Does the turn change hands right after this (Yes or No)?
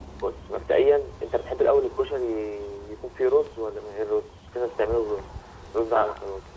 Yes